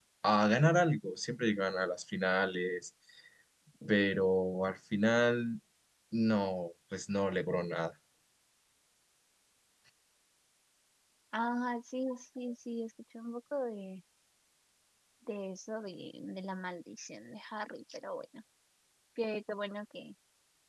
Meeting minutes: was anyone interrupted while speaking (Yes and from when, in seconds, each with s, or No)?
No